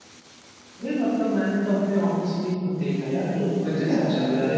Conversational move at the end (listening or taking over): listening